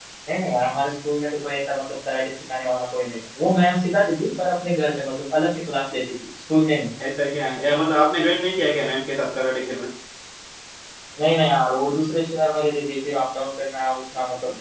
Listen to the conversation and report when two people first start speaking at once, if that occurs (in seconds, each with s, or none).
none